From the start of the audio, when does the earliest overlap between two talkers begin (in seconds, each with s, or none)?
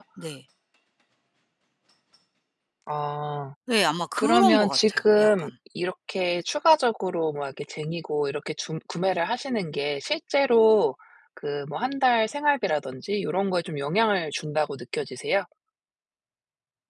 4.2 s